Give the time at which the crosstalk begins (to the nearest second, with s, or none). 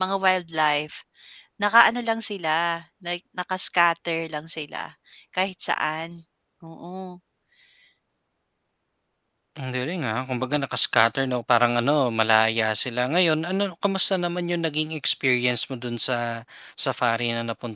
none